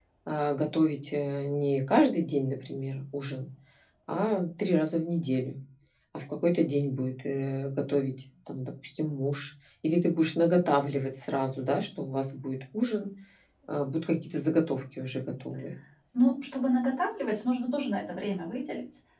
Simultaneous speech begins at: none

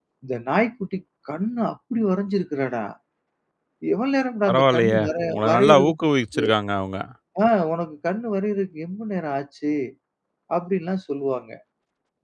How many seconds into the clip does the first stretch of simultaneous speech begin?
4.5 s

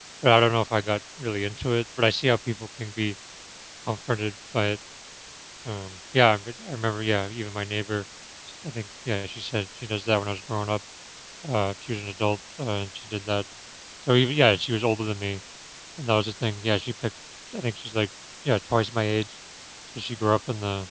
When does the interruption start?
none

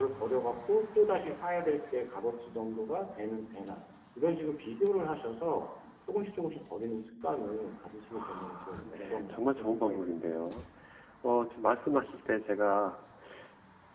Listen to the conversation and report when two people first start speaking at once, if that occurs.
8.1 s

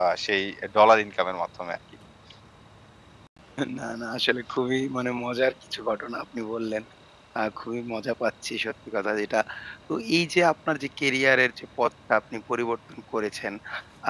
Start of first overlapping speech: none

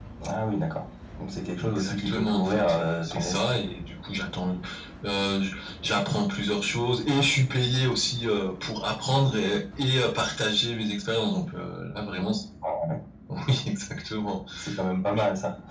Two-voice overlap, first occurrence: 1.6 s

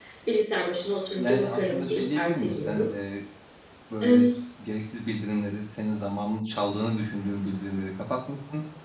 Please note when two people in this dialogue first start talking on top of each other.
1.2 s

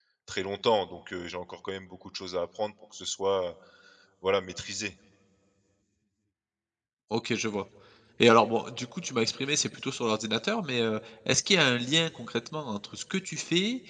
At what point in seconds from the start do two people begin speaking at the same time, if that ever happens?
none

